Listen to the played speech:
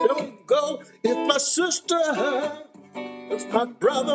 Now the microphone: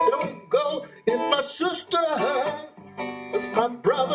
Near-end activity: none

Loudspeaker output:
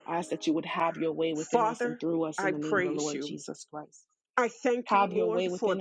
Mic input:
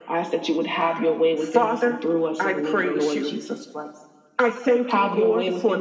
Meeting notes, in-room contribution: none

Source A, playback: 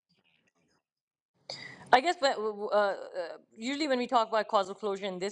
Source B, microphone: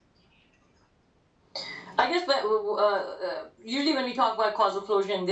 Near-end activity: none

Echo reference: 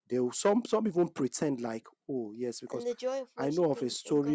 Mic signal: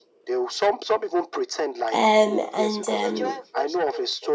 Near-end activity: present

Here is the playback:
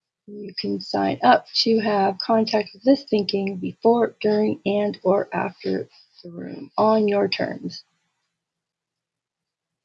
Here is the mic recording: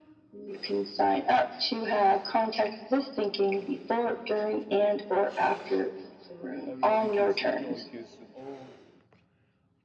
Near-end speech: present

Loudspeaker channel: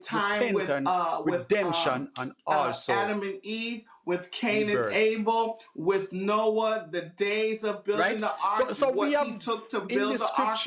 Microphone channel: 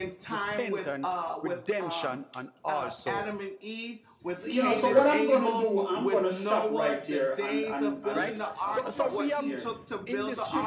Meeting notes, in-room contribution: present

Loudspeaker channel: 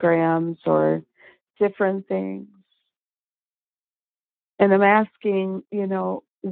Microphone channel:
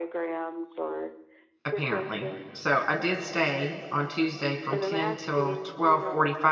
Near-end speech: present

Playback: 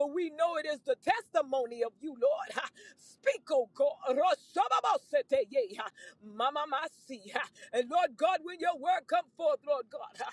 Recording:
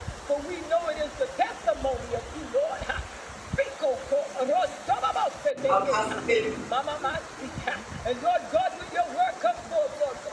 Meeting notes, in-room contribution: present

